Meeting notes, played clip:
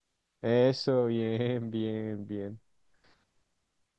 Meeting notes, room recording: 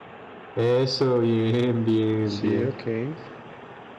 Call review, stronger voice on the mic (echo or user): echo